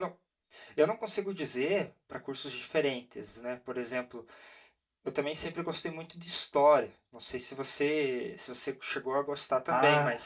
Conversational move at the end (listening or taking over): taking over